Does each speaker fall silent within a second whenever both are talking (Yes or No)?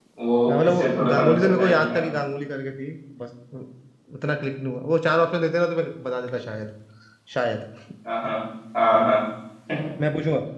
No